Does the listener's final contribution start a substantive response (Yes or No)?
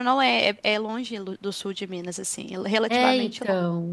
Yes